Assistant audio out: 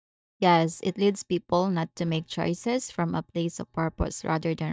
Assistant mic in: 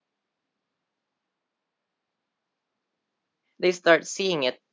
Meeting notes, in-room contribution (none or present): present